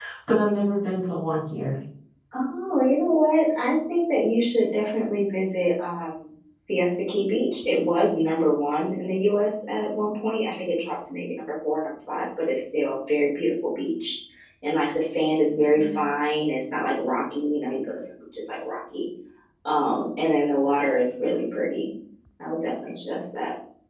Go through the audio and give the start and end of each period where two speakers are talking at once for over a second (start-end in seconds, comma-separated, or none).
none